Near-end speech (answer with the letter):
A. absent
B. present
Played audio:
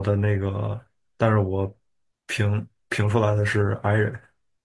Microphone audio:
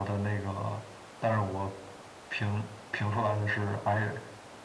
A